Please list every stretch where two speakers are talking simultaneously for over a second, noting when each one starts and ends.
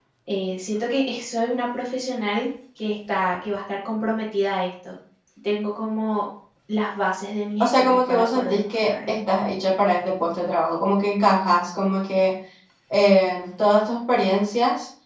7.6-9.1

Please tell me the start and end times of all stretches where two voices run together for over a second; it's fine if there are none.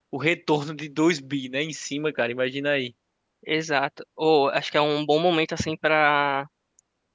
none

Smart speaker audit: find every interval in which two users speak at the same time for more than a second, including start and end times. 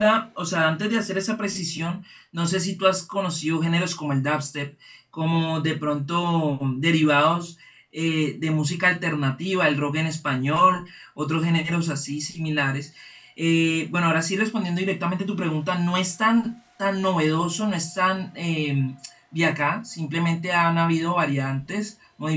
none

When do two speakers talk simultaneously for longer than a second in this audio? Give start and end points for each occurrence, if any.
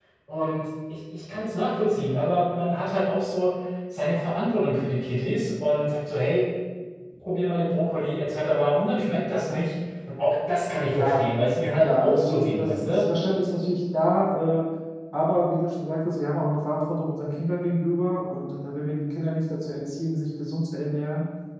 11.8-13.0

